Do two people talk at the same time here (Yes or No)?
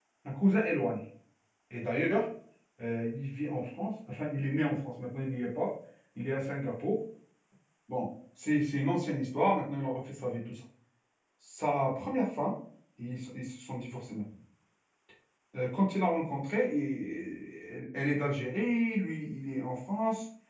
No